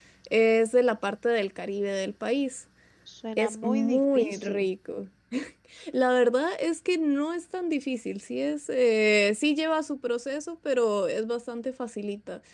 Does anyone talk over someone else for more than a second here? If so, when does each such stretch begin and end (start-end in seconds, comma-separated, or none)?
3.4-4.7